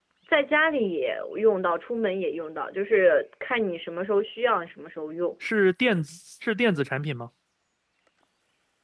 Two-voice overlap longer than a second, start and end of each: none

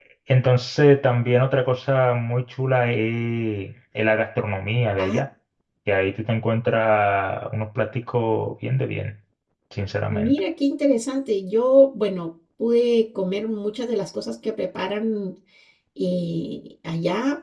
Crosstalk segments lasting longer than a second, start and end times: none

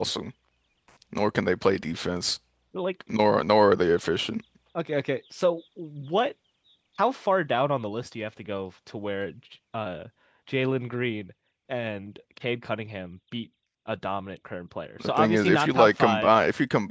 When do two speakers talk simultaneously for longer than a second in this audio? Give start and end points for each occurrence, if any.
15.0-16.3

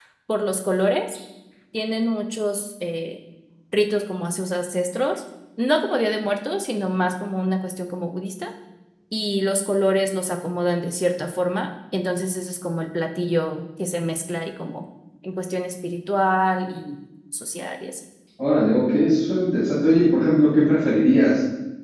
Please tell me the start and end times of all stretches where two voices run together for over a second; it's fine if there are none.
none

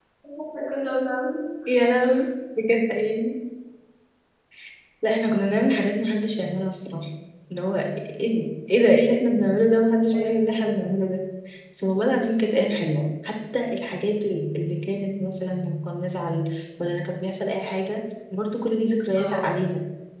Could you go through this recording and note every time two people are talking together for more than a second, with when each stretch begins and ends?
none

